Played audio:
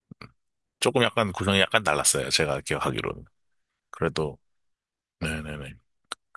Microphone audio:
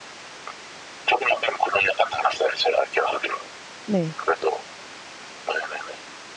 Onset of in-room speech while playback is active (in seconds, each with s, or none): 3.8 s